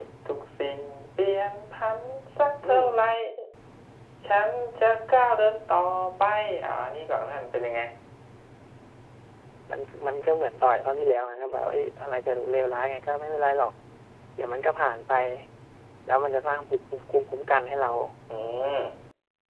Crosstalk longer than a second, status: none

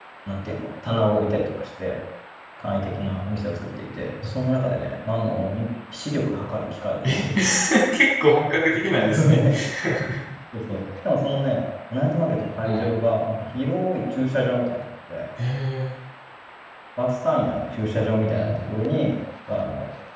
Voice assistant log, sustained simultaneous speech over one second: none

